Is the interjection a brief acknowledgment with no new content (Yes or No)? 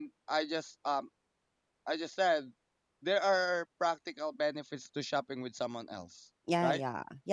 No